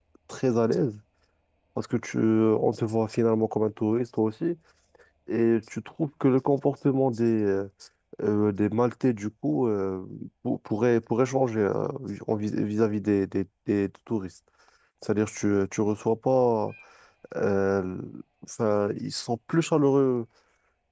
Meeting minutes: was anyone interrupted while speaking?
No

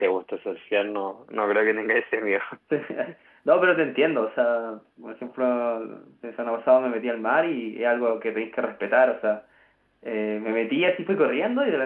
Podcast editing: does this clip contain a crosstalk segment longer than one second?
No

